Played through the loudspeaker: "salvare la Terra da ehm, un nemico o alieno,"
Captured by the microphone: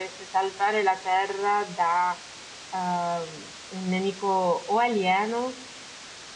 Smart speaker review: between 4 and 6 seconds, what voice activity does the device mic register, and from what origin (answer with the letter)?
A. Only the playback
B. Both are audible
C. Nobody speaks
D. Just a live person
A